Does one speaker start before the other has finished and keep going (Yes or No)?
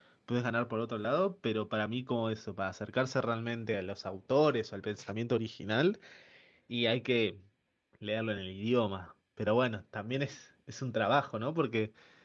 No